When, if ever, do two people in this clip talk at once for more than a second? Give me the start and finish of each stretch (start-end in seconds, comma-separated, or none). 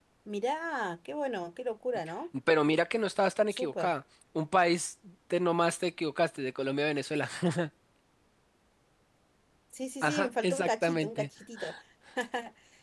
10.0-11.3